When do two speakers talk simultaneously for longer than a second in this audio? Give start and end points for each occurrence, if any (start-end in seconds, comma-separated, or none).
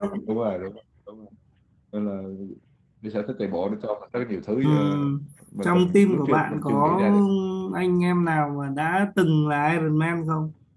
5.6-7.0